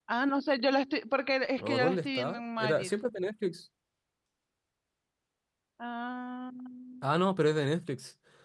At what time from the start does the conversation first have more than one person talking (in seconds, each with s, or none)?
1.6 s